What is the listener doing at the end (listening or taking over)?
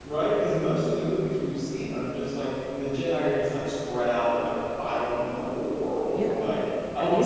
taking over